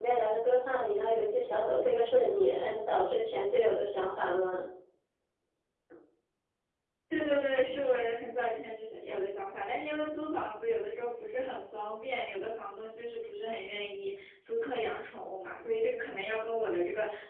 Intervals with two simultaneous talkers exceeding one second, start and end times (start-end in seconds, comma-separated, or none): none